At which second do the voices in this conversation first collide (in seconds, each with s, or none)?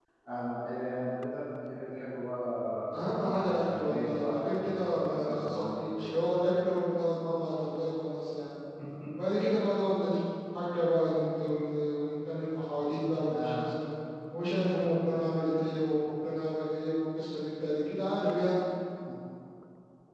3.4 s